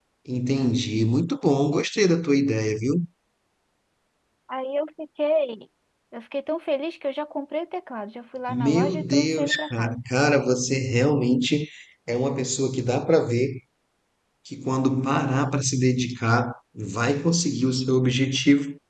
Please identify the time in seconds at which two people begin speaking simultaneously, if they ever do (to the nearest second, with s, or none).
8 s